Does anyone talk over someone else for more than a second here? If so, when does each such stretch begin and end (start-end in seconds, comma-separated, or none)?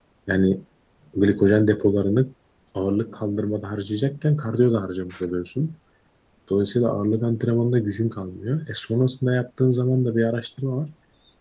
none